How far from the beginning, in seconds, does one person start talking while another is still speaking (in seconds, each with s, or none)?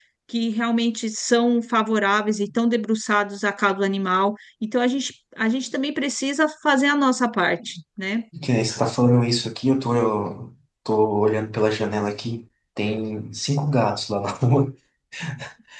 none